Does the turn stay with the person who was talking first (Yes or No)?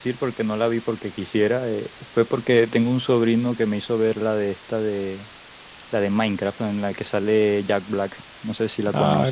No